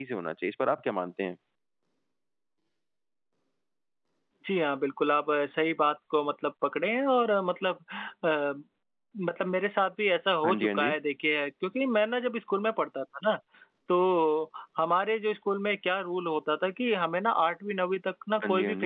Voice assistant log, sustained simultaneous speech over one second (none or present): none